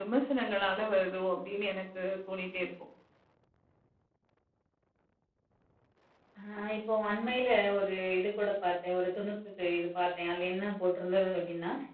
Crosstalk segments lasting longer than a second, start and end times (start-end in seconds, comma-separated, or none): none